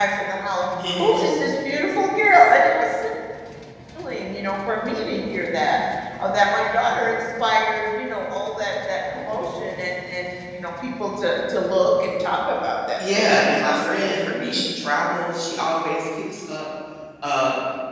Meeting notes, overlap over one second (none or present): present